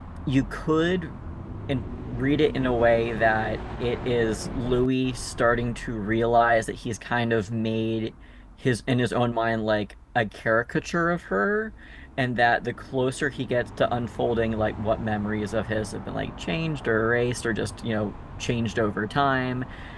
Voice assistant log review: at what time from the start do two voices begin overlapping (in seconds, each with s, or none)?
none